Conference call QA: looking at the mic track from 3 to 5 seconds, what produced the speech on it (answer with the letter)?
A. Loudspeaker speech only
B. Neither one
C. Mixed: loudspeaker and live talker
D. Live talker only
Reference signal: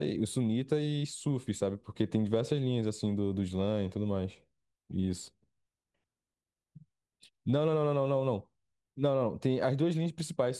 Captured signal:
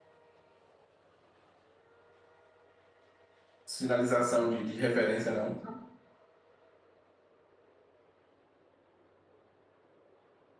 D